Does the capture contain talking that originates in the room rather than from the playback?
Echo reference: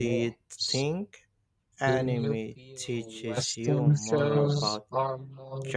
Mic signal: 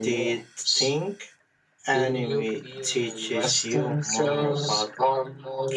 No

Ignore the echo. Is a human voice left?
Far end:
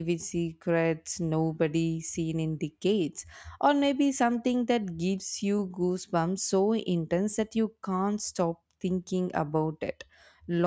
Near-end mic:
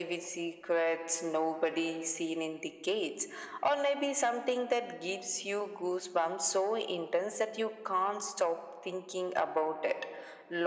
No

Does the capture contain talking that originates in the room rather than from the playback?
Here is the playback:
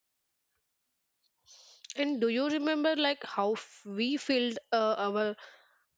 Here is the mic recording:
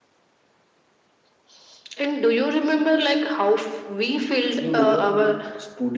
Yes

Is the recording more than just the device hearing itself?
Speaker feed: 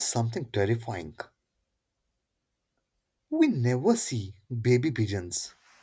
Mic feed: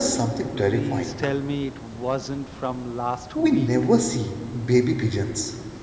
Yes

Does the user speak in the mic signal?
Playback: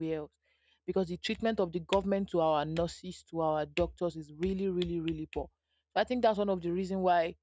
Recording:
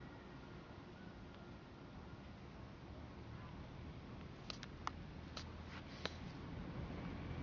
No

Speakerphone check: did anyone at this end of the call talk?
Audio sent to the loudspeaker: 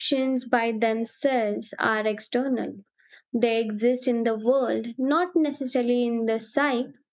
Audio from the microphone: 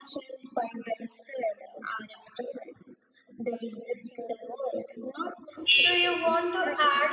Yes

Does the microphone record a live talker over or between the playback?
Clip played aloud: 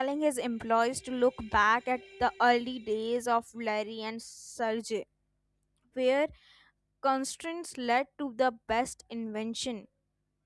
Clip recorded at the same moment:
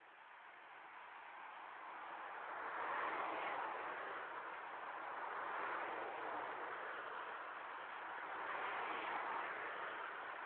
No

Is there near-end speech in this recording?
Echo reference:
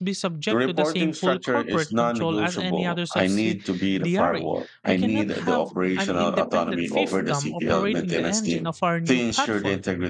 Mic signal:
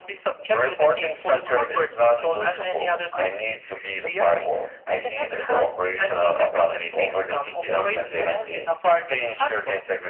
No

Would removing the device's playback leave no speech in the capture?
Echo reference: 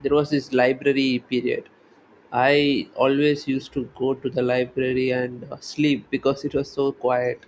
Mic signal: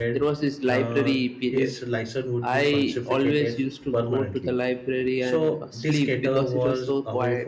No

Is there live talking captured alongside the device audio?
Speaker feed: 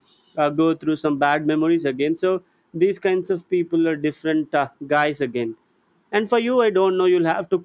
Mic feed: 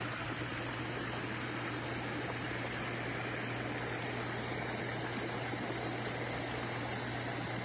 No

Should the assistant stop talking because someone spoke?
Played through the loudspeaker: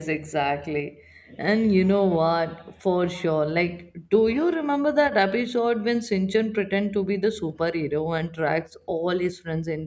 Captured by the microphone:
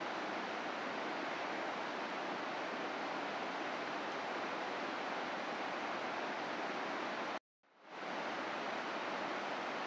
No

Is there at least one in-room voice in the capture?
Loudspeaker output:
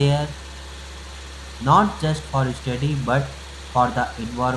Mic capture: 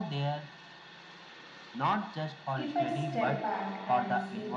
Yes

